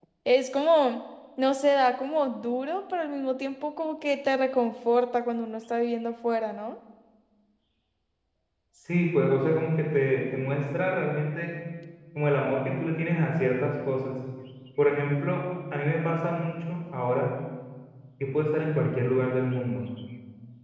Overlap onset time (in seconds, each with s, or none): none